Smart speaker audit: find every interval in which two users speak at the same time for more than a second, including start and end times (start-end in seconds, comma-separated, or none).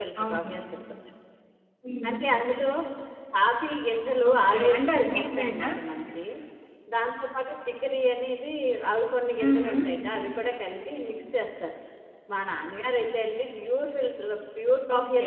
4.3-5.7